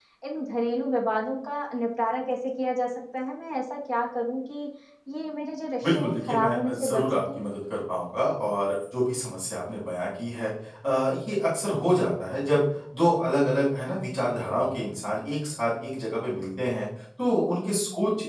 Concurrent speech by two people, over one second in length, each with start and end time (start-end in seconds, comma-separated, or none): 5.8-7.2